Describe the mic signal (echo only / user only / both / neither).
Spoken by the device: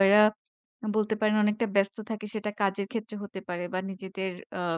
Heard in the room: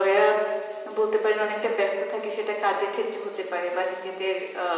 echo only